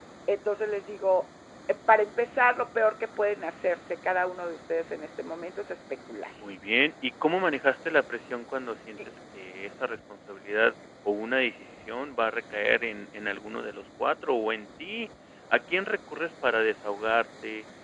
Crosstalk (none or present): none